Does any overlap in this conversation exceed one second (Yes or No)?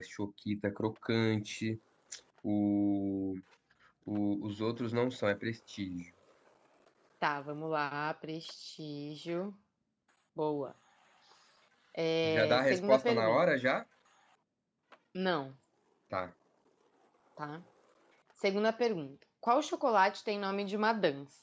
Yes